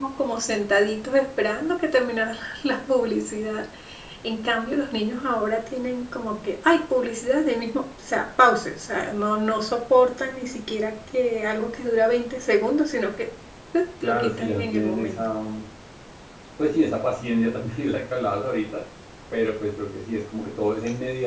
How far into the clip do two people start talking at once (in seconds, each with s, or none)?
14.0 s